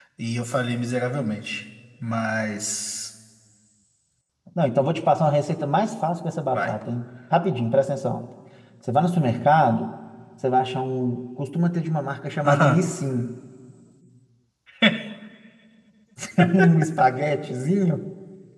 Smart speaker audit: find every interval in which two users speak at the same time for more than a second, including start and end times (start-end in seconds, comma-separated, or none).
none